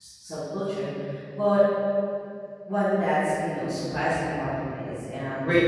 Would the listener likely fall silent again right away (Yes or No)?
No